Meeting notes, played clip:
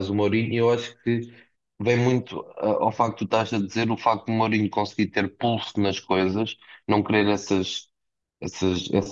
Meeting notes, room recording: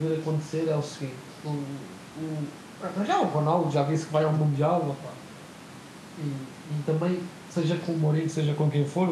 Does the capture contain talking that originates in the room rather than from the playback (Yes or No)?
Yes